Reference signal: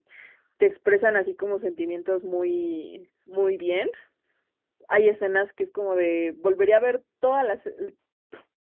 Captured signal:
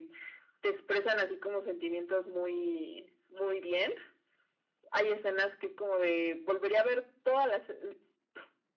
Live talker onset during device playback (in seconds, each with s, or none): none